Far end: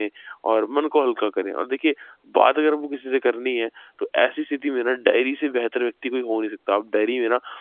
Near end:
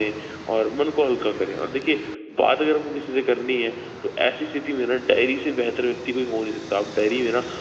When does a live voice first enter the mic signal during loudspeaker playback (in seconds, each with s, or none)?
none